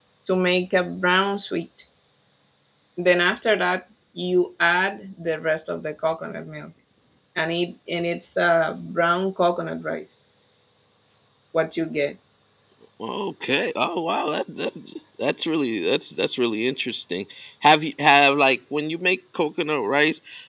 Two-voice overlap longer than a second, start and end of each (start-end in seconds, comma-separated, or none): none